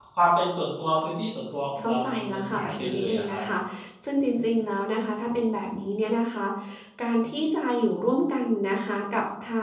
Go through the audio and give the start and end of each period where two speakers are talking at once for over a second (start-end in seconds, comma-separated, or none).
1.8-3.4